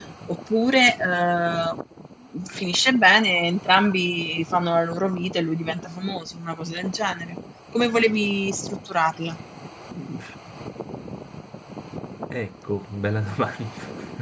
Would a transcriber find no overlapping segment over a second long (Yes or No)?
Yes